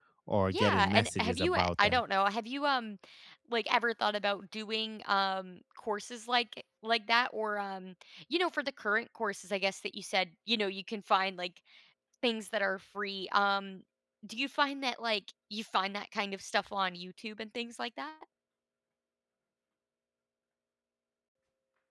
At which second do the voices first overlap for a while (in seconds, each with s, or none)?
0.5 s